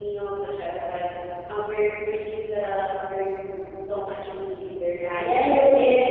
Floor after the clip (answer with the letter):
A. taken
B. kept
A